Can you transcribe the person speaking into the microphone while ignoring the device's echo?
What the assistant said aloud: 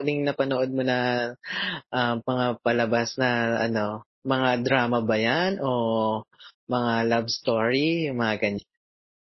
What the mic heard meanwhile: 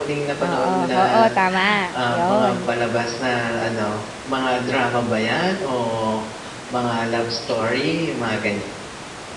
Oo oo tama, yon.

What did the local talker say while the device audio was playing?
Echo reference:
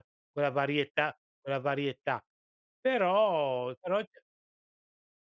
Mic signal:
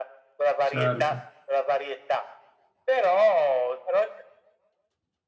Certo.

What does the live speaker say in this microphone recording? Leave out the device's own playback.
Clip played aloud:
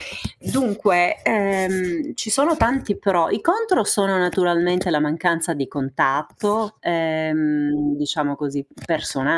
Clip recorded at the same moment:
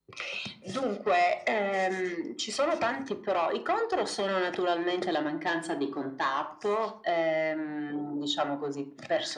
none

